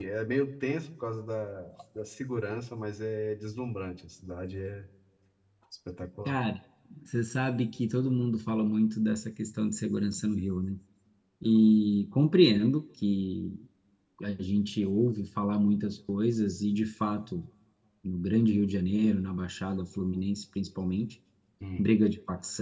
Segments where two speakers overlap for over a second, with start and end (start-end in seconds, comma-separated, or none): none